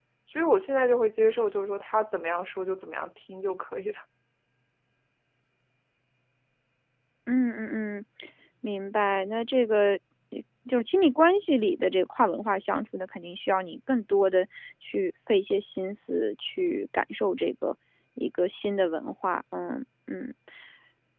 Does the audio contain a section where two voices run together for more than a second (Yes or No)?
No